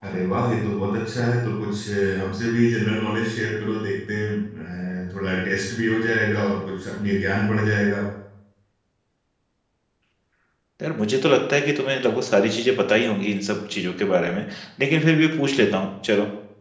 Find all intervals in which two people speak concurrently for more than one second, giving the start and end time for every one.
none

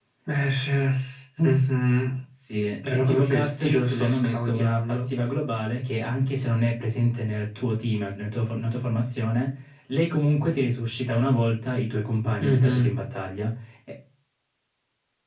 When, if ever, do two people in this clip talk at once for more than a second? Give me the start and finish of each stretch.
2.9-5.1

